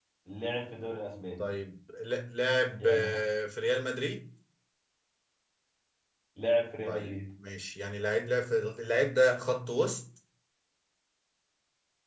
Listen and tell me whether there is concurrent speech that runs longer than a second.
No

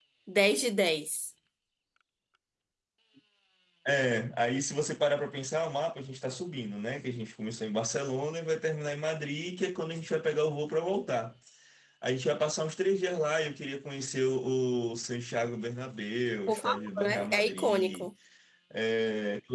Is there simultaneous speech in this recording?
Yes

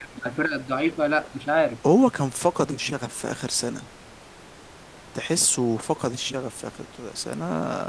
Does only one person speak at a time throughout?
Yes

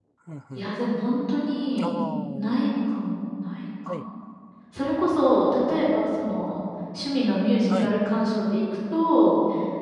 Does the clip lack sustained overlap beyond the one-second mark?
Yes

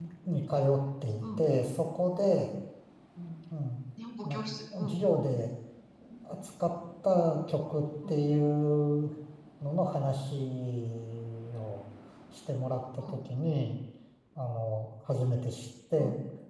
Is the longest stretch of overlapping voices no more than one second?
Yes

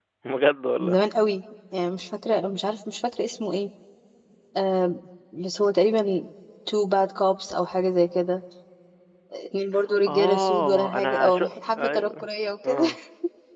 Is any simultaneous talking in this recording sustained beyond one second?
Yes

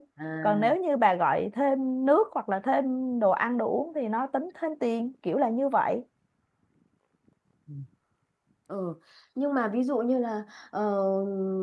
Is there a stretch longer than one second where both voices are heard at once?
No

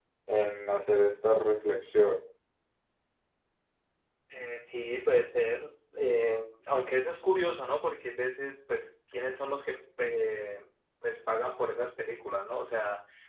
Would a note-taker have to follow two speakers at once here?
No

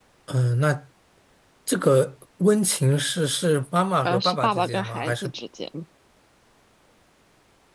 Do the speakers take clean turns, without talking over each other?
No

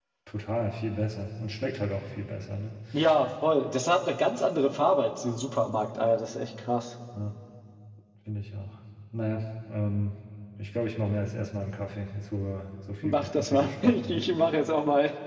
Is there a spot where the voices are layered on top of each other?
Yes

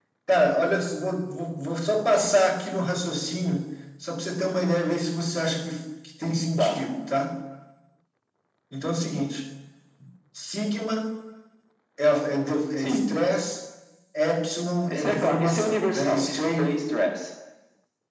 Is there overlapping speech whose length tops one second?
Yes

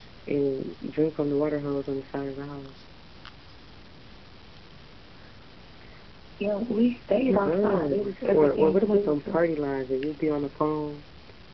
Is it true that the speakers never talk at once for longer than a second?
No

